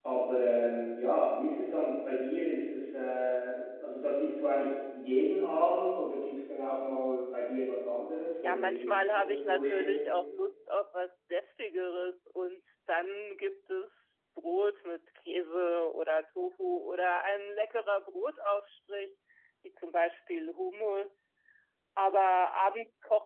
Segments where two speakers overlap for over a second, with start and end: 8.4-10.0

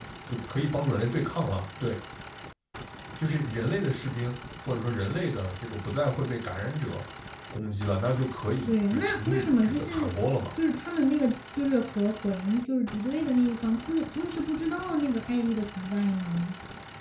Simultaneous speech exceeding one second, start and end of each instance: 8.7-10.1

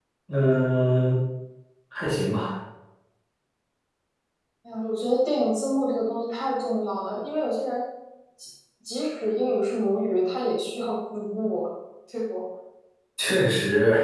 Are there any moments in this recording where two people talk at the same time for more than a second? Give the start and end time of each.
none

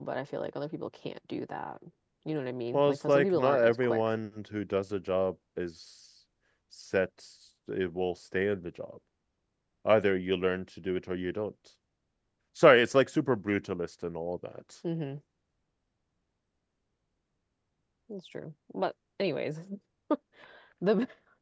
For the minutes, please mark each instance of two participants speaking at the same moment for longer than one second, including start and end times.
2.7-4.1

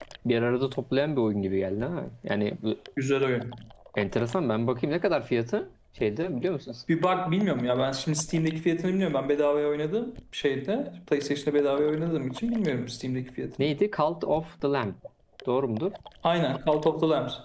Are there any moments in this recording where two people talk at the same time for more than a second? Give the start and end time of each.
none

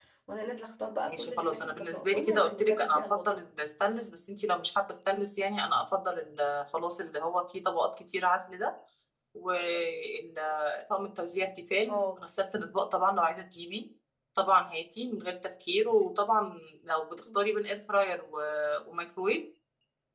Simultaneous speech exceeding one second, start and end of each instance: 1.1-3.2

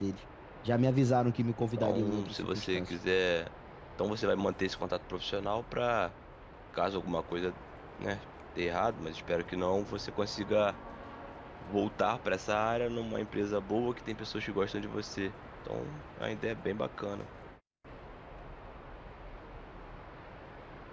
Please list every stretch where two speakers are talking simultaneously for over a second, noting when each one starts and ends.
1.6-2.9

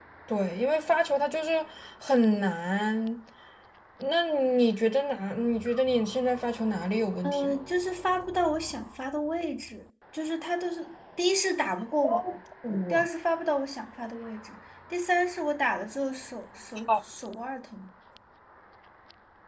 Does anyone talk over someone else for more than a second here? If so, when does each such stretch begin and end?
none

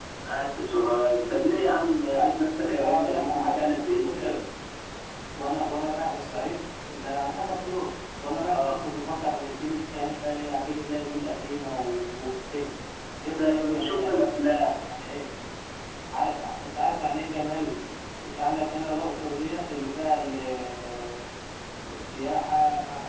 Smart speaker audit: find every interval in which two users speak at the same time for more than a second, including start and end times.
2.1-4.2, 13.3-14.7

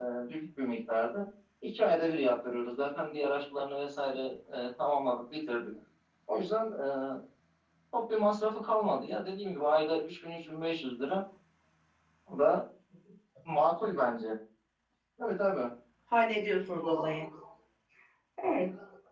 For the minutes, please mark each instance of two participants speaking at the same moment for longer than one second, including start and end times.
none

